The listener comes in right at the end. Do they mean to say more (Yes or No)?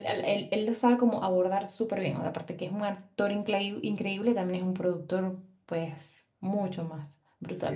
Yes